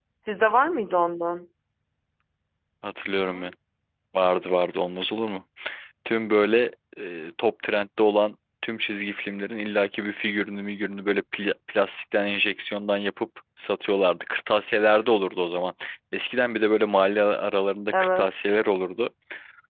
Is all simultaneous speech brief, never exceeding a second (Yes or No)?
Yes